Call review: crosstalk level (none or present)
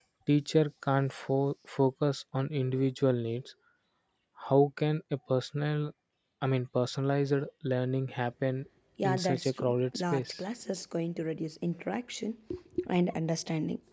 present